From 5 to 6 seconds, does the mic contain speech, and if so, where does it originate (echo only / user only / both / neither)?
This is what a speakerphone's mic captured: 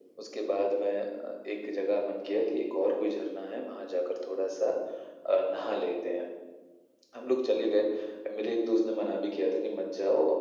echo only